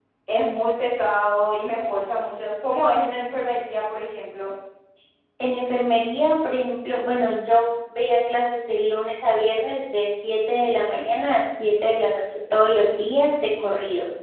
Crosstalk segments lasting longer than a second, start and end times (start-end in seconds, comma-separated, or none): none